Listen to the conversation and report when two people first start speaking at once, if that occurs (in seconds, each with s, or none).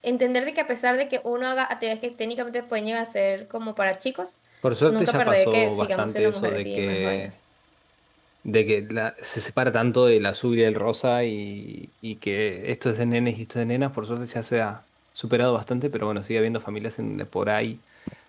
4.9 s